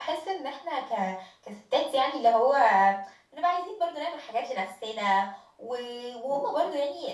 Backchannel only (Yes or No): Yes